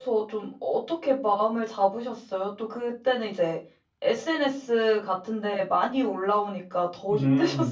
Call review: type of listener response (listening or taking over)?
taking over